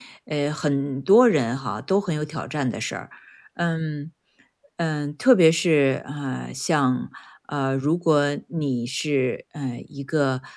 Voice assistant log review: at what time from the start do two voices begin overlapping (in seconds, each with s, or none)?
none